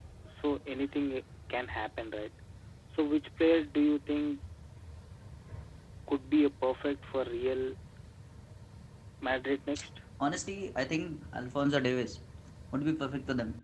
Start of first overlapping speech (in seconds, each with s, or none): none